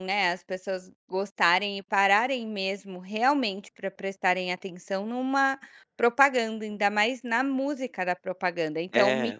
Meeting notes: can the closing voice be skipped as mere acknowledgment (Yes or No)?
Yes